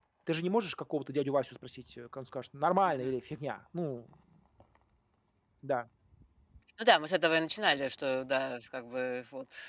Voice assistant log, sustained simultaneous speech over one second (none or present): none